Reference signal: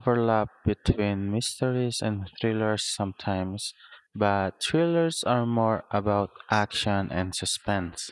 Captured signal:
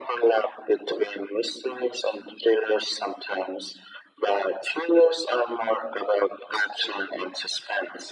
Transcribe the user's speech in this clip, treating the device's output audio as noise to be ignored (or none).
none